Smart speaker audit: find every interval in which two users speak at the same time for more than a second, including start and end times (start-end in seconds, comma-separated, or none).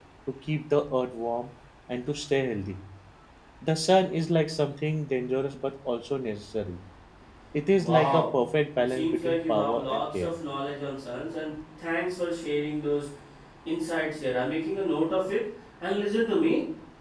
8.9-10.3